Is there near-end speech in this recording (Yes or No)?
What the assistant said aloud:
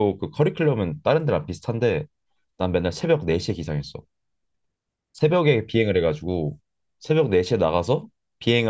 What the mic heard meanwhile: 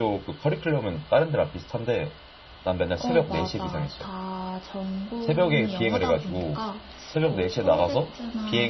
Yes